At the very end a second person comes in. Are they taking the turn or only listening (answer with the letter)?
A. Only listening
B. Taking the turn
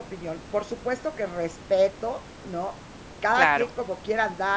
A